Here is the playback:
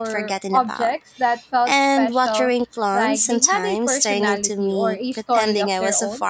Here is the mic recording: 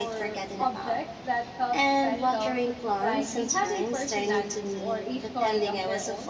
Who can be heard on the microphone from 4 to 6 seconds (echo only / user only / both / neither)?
echo only